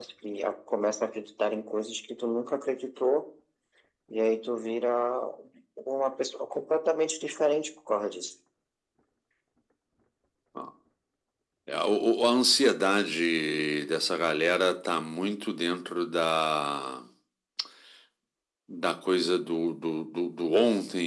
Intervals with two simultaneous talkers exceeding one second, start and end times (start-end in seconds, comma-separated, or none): none